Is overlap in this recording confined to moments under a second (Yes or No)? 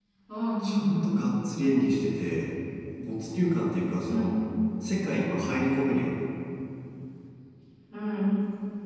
Yes